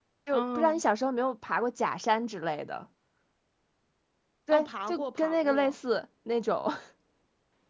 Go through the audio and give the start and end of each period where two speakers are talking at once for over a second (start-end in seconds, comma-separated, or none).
4.5-5.8